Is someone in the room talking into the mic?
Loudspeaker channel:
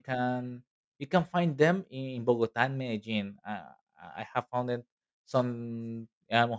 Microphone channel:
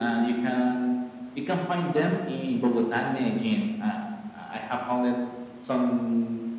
No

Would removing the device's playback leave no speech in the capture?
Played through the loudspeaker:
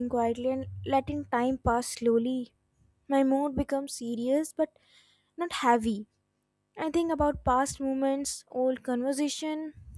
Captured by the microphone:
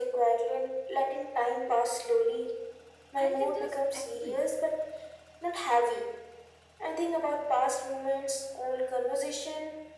No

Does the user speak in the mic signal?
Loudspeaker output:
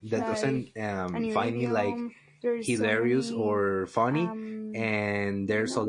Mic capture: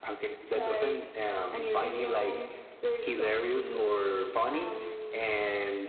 No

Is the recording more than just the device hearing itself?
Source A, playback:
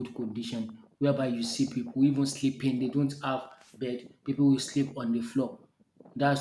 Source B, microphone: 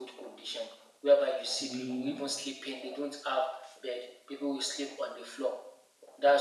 Yes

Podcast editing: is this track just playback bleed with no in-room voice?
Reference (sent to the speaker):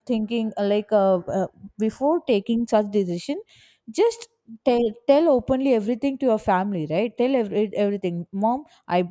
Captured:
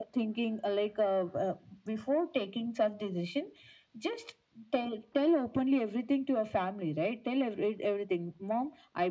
Yes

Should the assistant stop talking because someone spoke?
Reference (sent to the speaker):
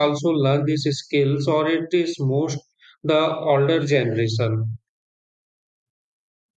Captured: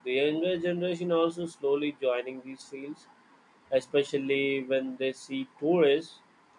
Yes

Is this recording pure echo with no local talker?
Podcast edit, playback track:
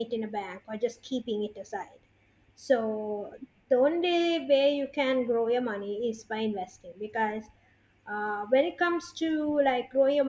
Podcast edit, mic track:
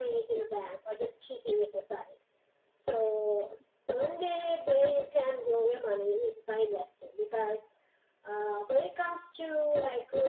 Yes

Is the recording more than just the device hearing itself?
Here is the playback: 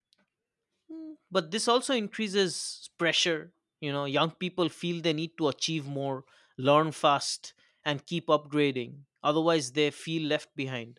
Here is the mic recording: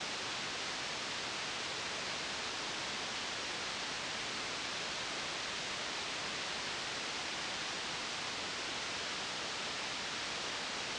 No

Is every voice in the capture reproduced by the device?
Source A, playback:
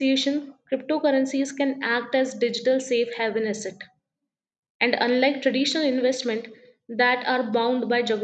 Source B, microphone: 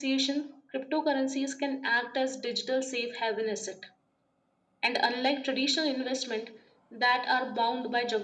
Yes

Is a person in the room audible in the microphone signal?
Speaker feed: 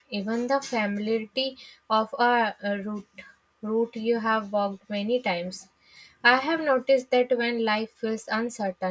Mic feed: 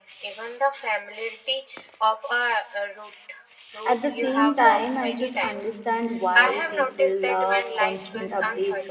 Yes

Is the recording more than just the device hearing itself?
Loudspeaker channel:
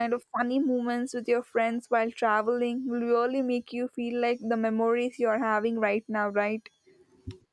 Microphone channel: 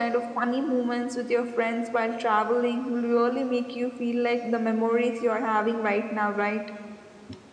No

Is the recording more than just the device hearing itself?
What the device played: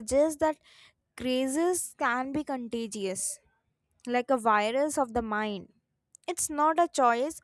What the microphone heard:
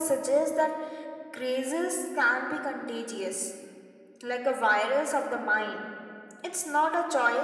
No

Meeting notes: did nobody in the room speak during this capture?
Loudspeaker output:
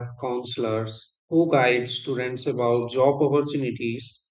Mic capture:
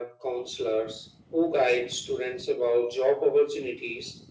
Yes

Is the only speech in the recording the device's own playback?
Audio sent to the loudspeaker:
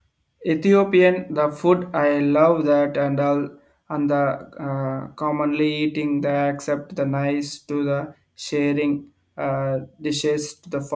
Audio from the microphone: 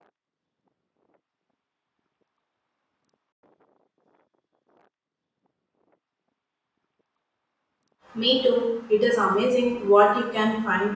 No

